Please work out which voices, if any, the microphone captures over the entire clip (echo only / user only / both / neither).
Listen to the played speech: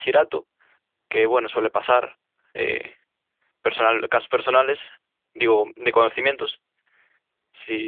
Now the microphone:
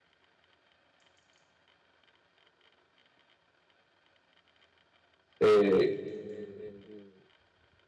user only